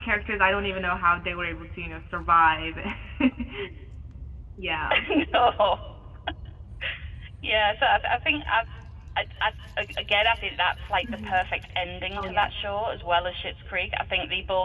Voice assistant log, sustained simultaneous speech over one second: none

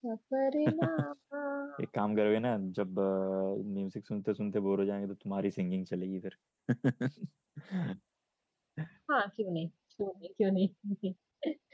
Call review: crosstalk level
none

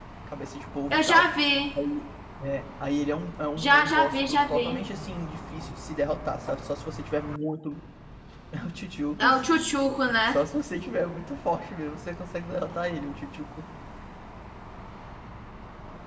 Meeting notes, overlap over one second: present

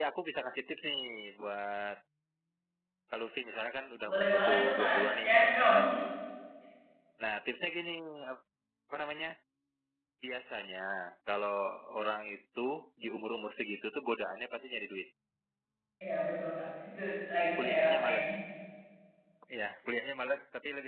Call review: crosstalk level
present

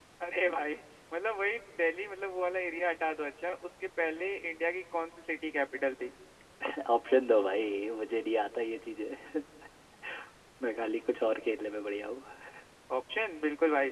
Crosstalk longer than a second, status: none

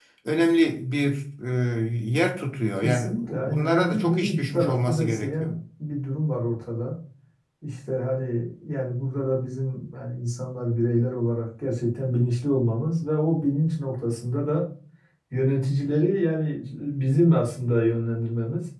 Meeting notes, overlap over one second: present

